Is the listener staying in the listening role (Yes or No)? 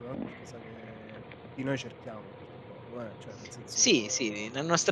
No